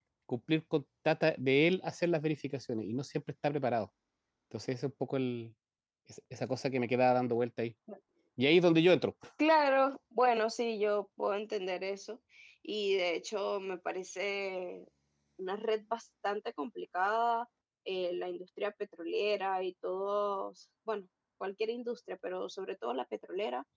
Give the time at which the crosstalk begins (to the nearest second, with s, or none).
none